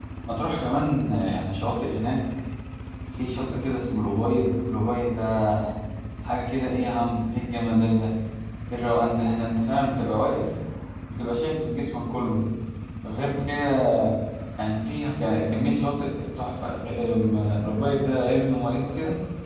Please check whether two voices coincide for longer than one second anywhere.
No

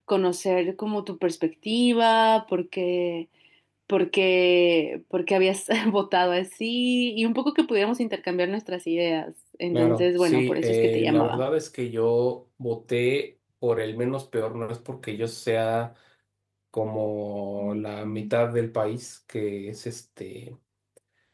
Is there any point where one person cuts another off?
Yes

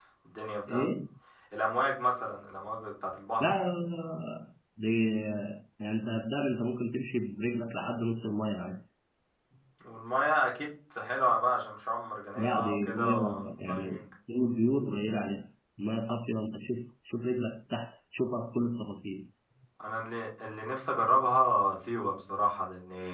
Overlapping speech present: Yes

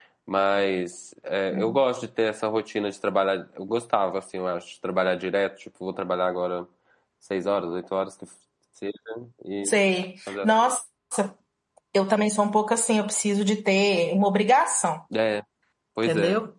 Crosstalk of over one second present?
No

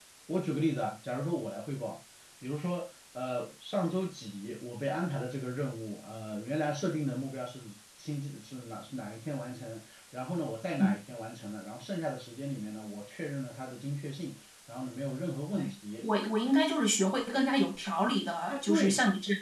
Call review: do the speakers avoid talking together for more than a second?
Yes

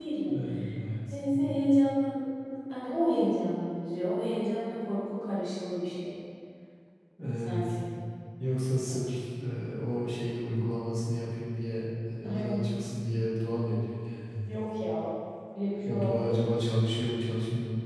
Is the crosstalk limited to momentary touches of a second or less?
Yes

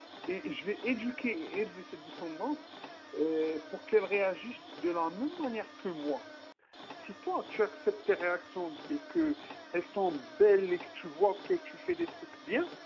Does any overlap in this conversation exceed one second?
No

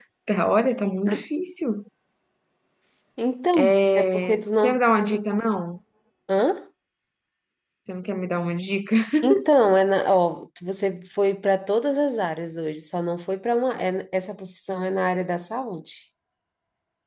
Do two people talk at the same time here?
Yes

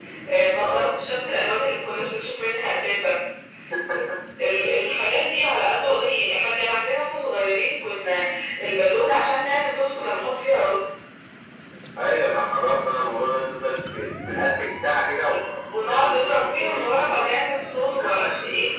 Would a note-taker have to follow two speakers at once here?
Yes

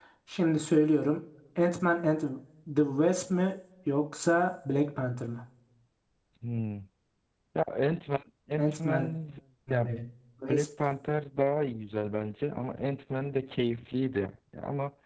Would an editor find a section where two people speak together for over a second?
No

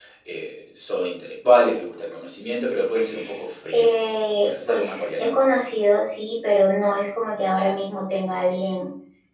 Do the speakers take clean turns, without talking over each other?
No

